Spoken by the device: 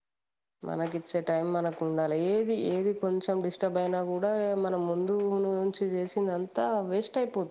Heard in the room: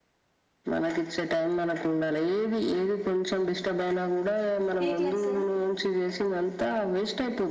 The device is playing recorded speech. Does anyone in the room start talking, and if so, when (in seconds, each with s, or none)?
4.9 s